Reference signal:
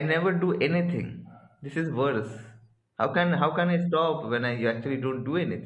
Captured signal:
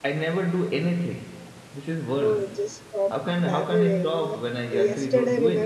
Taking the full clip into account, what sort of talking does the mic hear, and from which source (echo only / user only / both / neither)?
both